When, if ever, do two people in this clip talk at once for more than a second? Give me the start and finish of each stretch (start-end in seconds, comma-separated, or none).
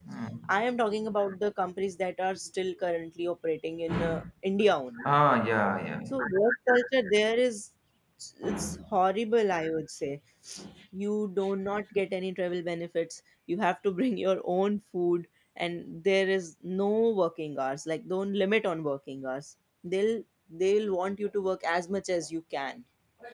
none